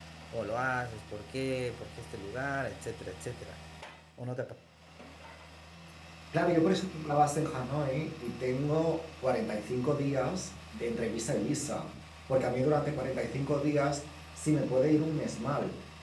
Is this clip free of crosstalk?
Yes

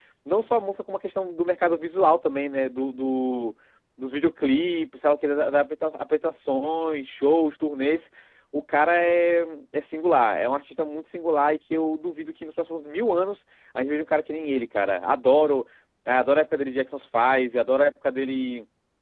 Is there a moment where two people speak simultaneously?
No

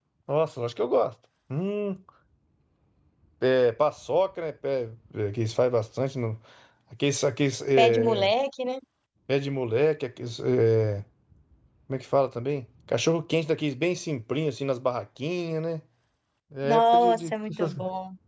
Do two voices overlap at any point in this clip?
Yes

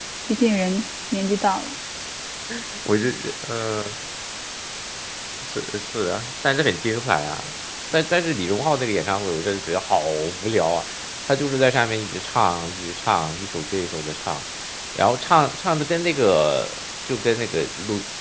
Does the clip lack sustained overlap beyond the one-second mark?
Yes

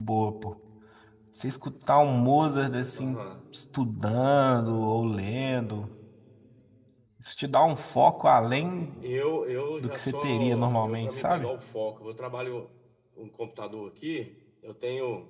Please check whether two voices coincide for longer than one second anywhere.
Yes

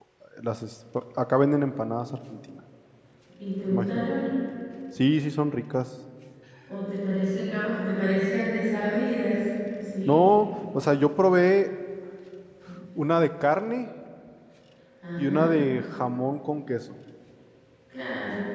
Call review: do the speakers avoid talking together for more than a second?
Yes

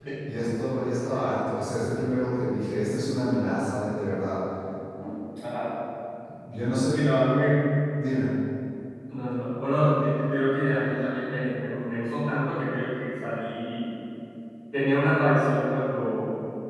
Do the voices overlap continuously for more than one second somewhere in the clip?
No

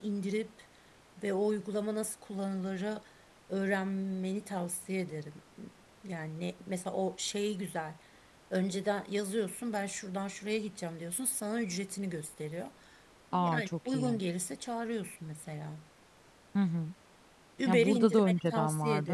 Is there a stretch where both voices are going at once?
Yes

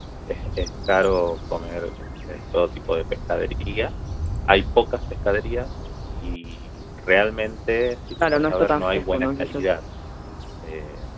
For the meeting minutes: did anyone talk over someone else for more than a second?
Yes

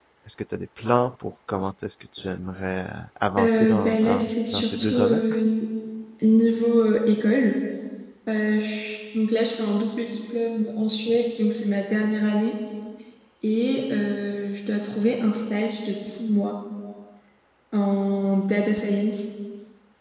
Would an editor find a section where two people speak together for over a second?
Yes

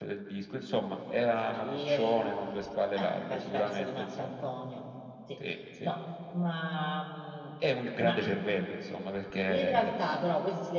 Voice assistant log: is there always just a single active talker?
No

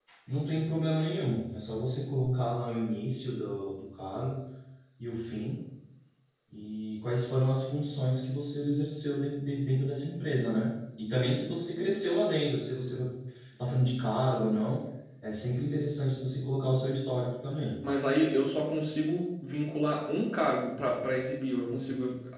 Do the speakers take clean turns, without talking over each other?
Yes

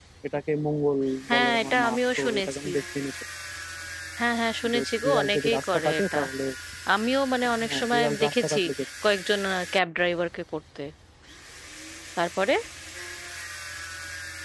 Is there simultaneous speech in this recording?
Yes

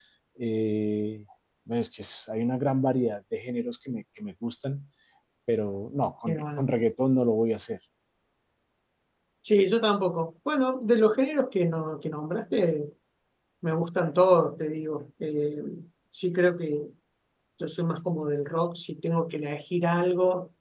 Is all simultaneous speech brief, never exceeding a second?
Yes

